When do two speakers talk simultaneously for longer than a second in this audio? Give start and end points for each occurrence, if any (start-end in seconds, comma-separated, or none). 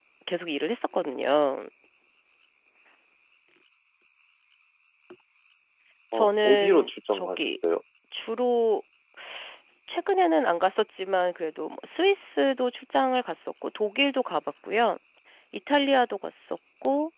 6.1-7.5